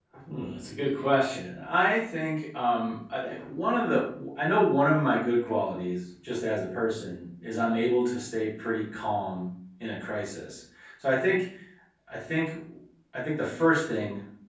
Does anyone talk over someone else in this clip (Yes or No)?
No